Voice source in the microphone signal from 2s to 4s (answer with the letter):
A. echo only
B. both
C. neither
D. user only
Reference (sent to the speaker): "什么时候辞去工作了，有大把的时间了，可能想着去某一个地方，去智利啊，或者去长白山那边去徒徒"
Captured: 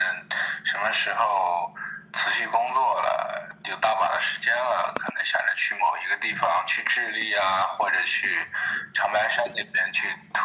A